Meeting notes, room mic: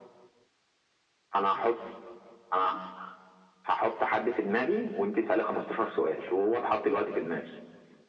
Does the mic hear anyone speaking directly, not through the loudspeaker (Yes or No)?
No